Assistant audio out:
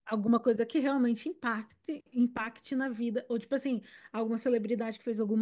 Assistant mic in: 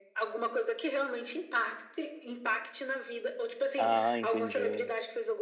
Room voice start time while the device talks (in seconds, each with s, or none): 3.8 s